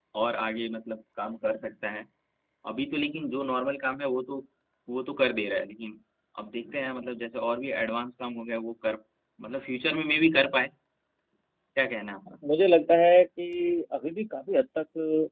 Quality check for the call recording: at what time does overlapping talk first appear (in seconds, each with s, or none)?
none